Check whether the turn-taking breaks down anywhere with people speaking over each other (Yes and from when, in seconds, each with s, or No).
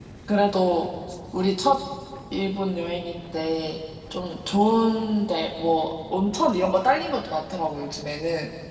No